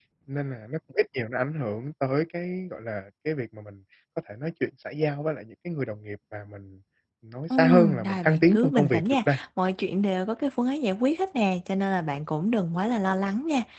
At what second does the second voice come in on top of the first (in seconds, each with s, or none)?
7.5 s